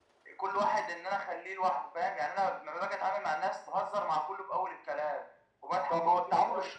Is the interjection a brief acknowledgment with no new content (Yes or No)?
No